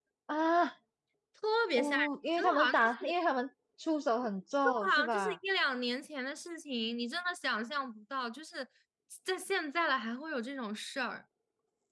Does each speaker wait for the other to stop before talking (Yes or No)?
No